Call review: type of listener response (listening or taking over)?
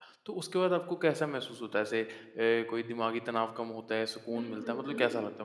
taking over